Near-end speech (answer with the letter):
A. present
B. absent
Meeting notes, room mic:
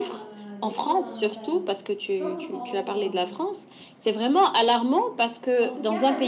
A